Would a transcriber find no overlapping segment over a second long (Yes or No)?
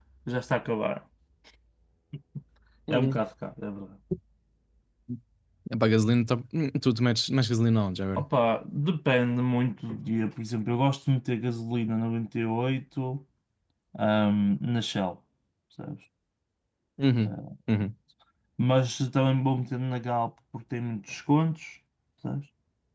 Yes